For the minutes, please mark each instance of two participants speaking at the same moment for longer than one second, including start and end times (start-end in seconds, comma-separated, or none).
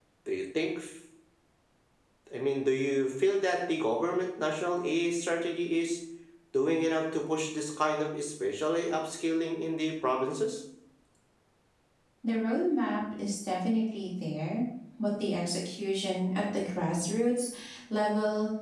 none